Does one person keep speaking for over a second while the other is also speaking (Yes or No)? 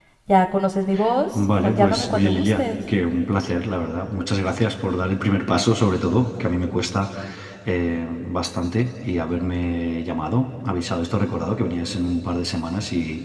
Yes